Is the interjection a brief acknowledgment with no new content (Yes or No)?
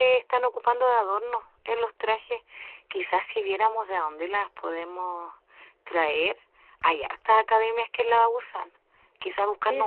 No